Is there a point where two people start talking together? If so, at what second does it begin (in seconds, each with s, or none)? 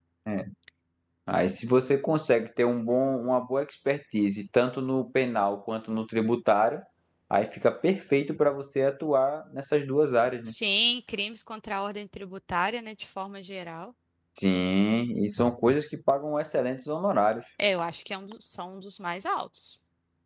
none